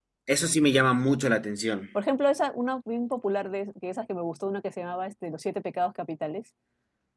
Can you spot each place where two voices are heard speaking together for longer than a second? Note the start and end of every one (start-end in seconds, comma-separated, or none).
none